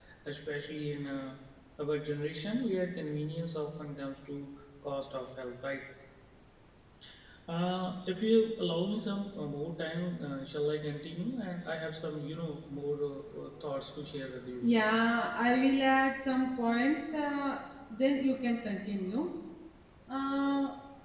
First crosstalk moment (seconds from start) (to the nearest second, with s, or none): none